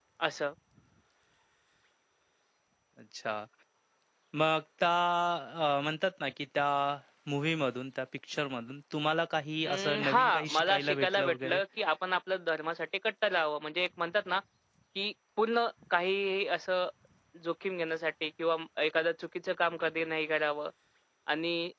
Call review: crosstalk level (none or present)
present